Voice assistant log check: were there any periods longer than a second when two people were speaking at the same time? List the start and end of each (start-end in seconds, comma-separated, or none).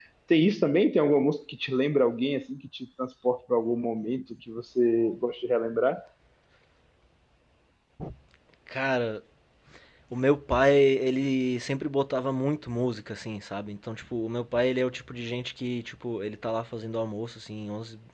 none